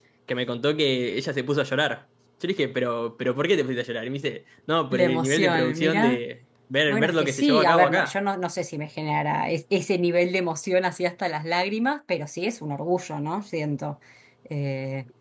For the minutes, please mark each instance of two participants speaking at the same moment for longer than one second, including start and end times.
4.9-6.2, 6.9-8.1

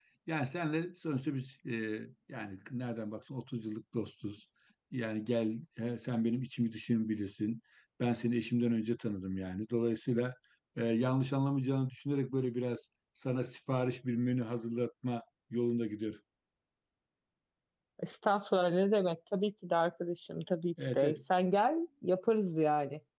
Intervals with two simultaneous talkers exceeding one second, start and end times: none

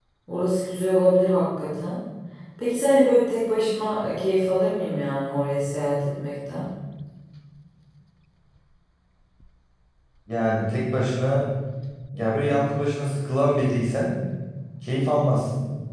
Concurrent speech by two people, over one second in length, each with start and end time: none

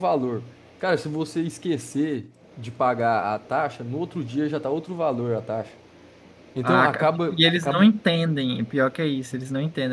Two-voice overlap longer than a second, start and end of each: 6.6-7.9

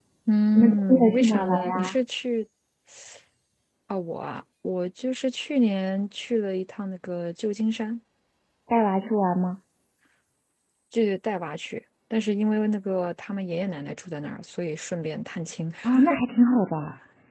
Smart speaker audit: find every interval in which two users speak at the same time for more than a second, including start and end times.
0.6-1.9

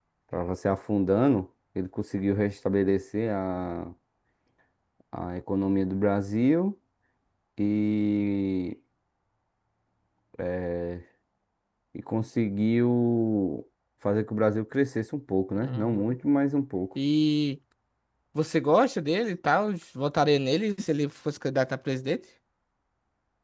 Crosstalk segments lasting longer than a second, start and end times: none

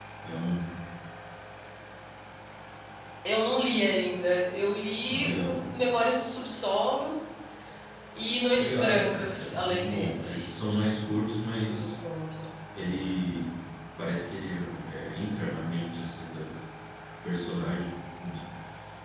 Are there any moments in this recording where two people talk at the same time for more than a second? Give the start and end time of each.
8.6-10.4

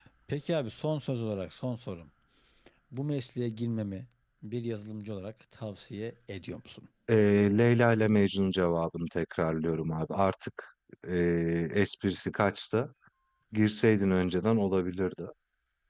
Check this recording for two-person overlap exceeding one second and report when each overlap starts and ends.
none

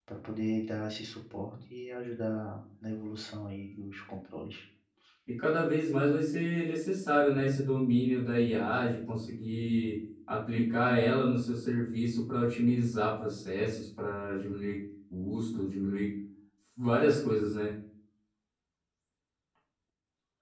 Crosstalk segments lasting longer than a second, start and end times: none

